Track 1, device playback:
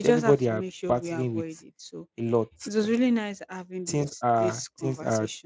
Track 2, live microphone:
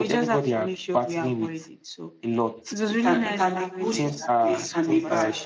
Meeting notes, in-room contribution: present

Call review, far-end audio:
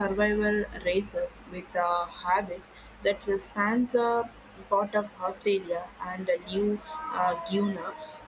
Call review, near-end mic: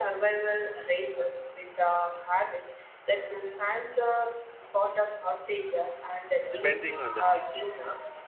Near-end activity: present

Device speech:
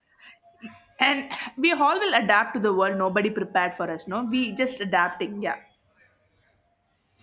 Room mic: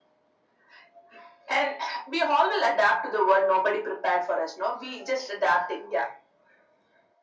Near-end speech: none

